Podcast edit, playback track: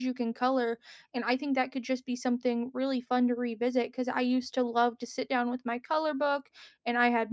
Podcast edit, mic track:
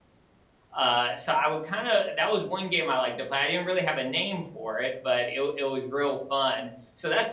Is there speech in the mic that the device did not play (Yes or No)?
Yes